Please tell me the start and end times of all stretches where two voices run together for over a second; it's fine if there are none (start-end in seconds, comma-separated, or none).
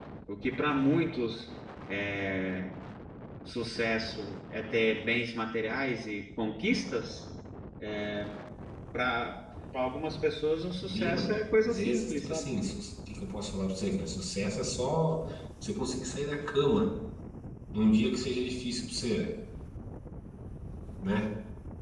10.9-12.5